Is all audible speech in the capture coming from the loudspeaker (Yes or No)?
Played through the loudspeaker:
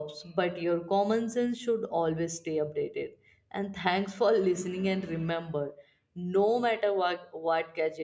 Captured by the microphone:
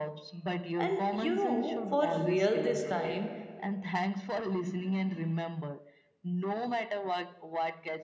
No